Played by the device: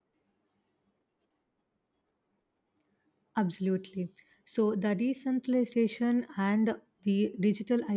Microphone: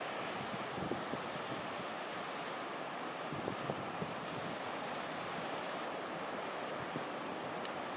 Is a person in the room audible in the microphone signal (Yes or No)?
No